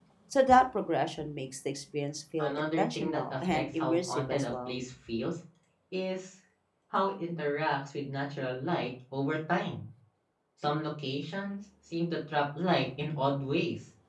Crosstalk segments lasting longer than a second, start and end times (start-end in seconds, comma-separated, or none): 2.4-4.8